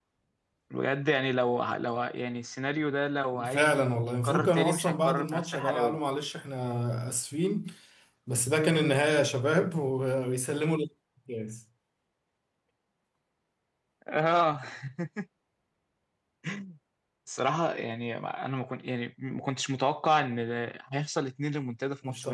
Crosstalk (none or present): present